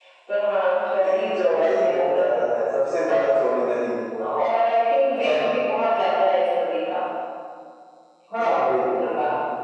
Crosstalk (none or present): present